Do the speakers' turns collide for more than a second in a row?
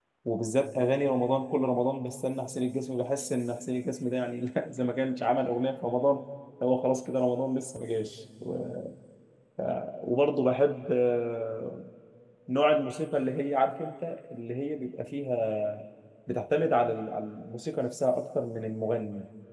No

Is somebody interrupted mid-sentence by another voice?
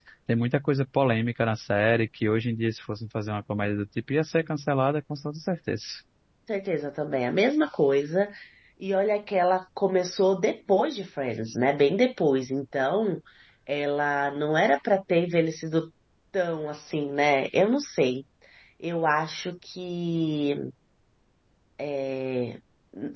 No

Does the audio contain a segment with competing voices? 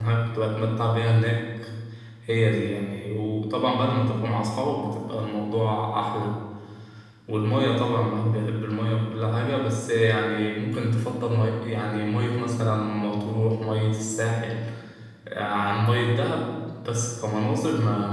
No

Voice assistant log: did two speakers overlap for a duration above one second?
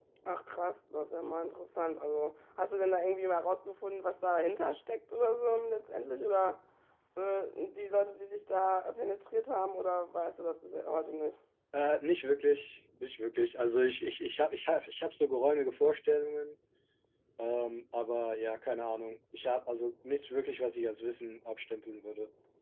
No

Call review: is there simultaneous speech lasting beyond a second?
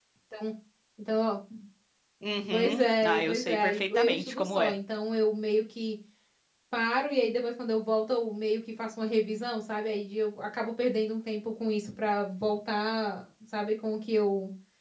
Yes, from 2.5 s

